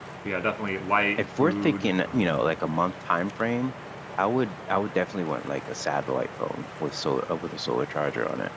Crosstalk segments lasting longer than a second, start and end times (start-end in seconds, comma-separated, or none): 1.2-2.5